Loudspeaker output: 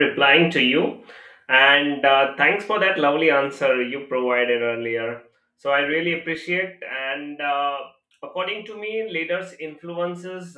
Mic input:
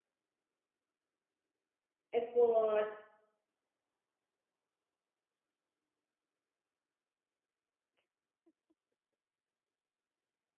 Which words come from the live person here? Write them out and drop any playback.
effort

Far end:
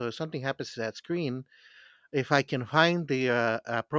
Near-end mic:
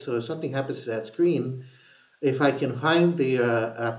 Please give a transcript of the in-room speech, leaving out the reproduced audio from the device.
none

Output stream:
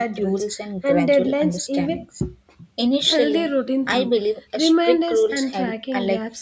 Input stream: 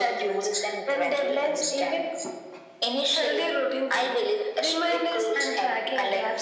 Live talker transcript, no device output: none

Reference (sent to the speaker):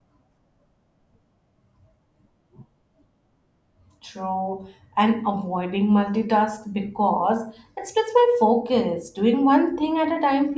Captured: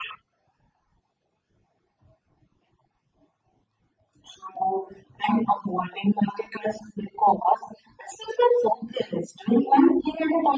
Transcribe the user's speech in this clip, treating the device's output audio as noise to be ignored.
none

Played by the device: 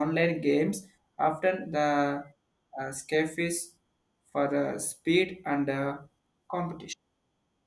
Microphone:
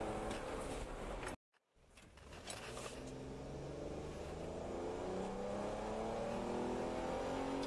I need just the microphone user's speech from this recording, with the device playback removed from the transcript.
none

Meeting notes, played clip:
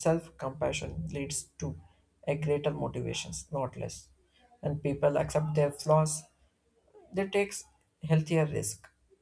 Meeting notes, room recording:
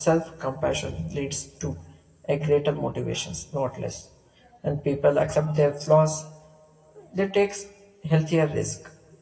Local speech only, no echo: none

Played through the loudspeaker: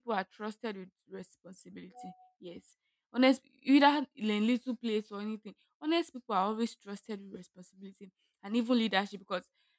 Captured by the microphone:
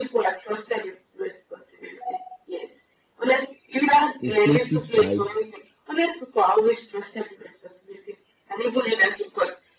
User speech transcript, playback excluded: instinctive side,

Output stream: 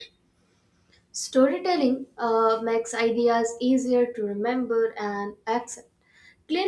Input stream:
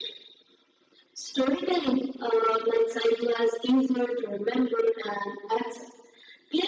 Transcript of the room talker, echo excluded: none

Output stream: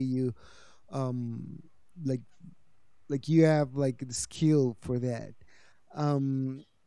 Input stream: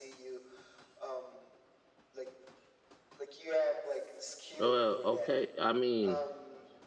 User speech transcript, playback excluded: Well, okay. I mean,

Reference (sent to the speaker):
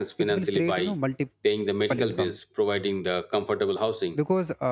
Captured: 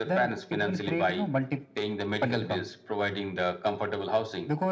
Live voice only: none

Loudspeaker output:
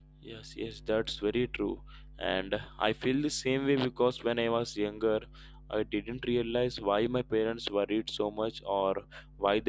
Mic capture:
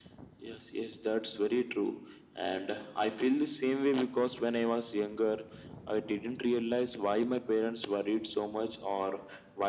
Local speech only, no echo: none

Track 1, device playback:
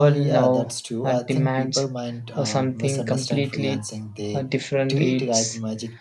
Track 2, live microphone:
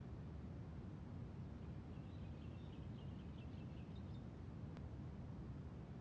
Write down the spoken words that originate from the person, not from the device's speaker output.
none

